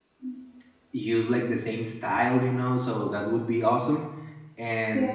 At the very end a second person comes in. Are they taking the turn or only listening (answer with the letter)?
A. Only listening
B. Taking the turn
A